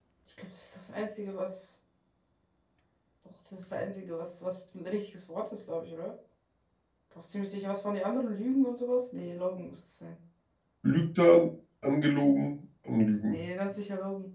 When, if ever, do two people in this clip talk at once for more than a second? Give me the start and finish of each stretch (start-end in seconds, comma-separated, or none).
none